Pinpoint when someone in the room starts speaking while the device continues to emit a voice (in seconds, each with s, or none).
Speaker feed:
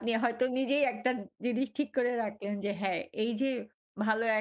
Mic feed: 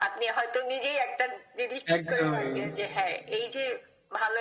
1.9 s